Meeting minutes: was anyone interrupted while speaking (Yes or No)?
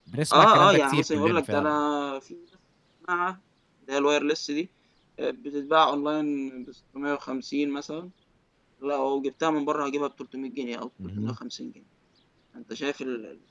Yes